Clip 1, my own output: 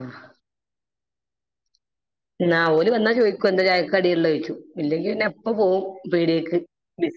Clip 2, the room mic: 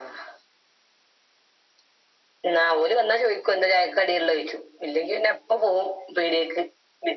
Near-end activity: none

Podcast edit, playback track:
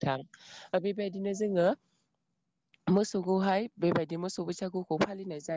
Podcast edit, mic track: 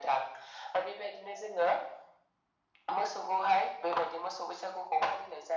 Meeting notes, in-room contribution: none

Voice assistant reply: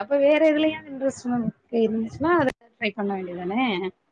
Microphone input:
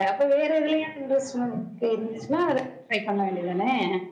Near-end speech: none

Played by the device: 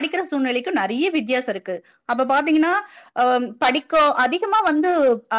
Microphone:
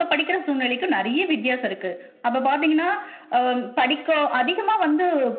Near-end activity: none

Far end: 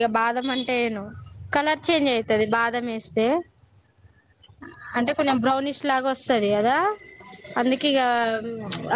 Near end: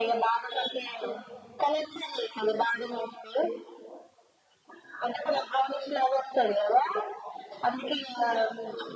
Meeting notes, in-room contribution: none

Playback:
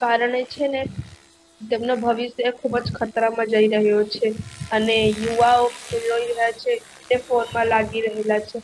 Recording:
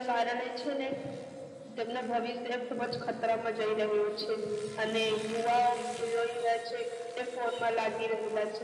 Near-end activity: none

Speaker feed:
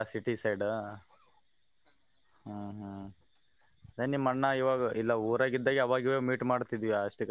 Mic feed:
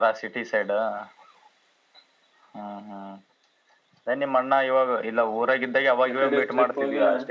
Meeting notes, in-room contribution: present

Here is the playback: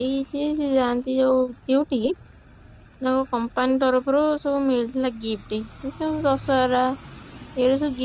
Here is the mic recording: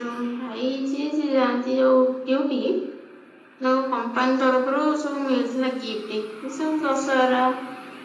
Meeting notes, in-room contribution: none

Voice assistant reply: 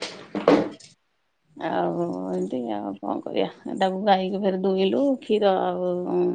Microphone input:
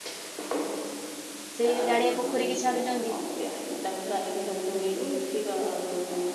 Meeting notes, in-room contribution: present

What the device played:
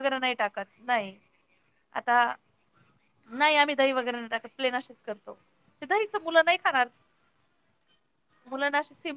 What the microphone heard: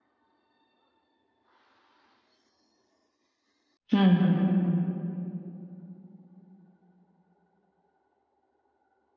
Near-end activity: present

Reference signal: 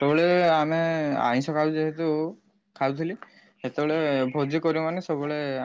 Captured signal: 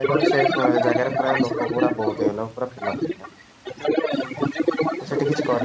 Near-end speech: present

